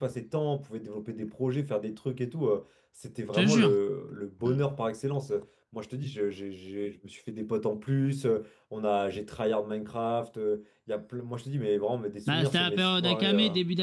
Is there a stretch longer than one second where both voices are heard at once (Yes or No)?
Yes